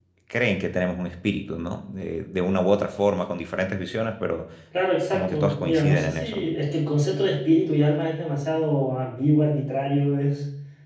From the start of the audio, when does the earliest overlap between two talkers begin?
5.1 s

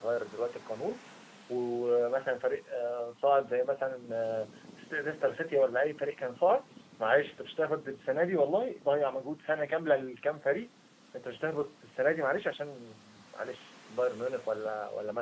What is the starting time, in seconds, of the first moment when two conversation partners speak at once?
none

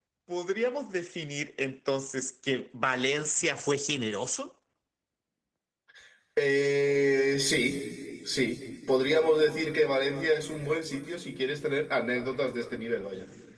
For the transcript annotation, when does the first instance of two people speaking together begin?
none

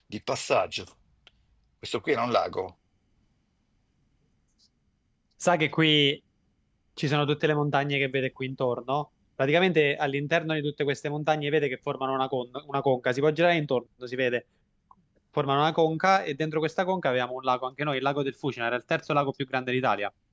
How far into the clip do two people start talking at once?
none

